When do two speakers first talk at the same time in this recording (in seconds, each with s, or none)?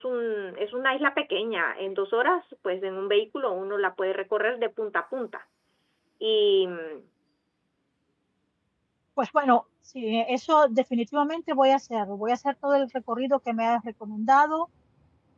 none